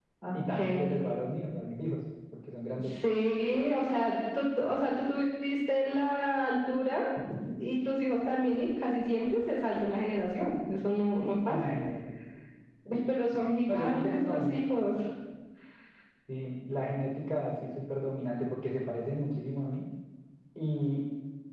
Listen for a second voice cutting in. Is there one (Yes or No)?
Yes